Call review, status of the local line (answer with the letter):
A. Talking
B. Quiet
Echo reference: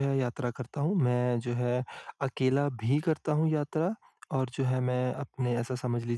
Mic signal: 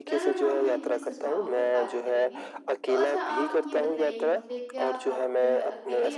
A